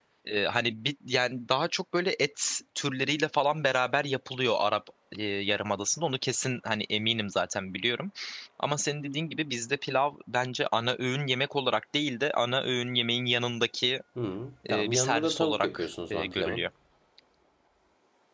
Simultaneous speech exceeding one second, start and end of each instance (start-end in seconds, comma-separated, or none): 14.7-16.6